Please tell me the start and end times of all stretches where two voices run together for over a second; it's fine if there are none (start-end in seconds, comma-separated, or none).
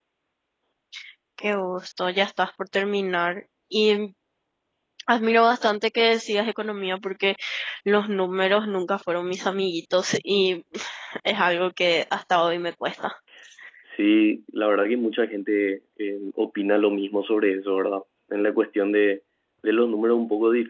none